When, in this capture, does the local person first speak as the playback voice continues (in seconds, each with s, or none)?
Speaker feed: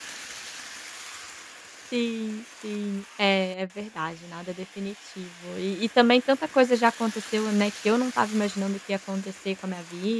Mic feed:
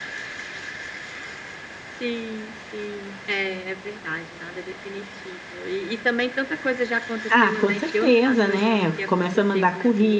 7.3 s